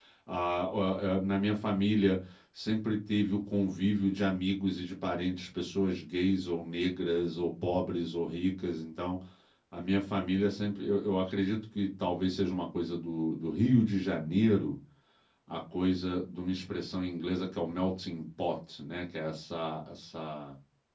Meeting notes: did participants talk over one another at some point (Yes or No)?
No